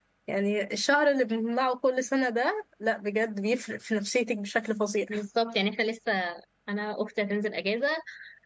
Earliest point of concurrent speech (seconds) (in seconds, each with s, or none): none